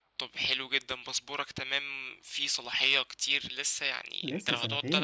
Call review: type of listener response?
listening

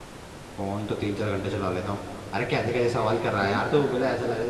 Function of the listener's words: listening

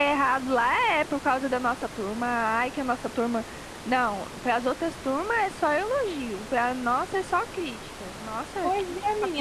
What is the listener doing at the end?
taking over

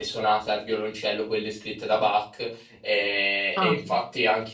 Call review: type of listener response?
listening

